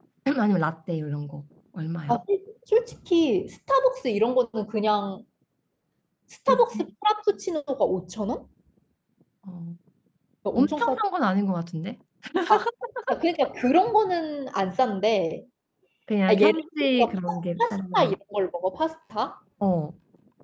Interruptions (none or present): present